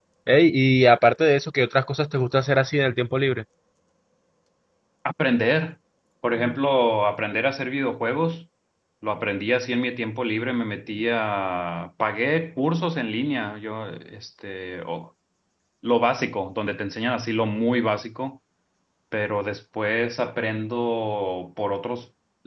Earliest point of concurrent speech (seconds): none

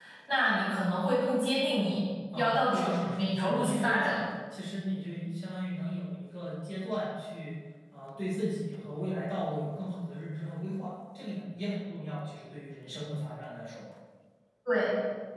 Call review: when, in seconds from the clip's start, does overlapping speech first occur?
2.3 s

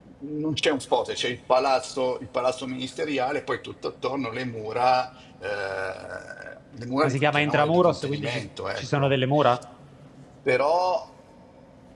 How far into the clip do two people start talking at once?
7.0 s

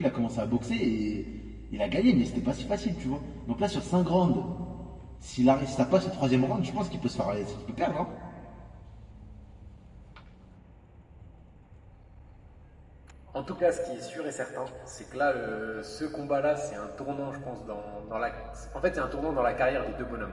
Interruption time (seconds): none

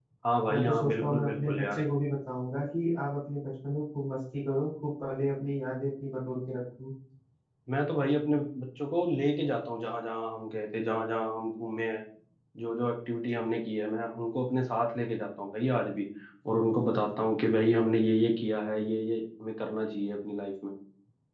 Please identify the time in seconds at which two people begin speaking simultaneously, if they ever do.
0.5 s

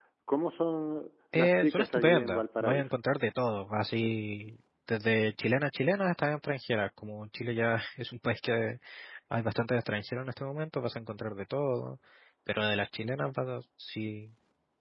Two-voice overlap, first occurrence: 1.3 s

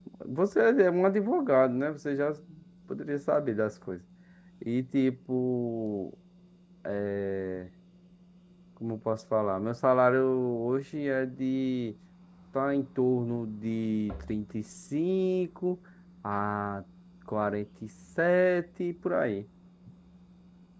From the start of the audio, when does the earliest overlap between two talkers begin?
none

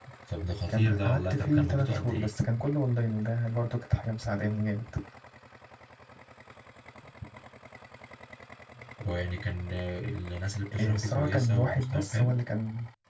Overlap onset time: 0.7 s

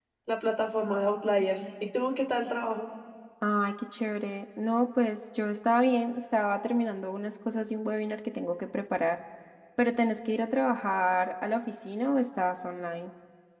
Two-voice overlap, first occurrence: none

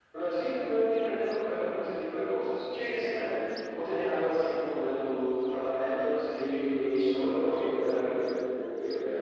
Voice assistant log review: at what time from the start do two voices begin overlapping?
6.3 s

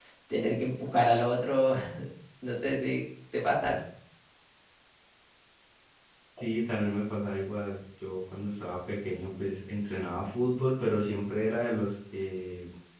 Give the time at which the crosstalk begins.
none

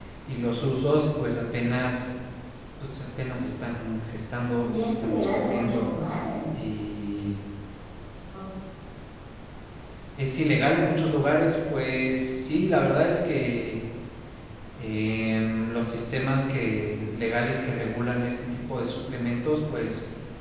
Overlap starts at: 4.6 s

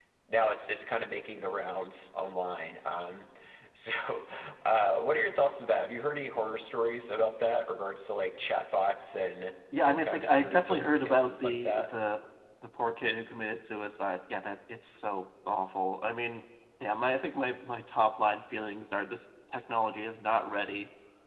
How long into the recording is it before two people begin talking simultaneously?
9.7 s

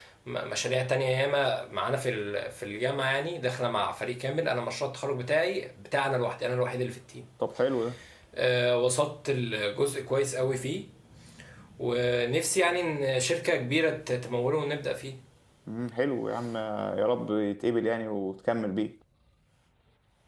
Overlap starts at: none

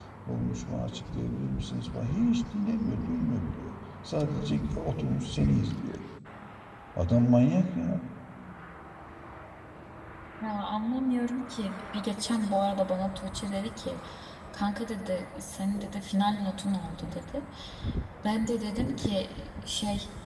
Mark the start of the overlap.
none

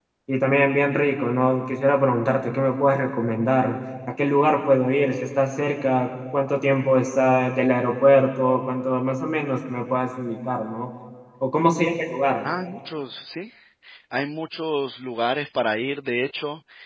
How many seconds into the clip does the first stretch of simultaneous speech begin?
none

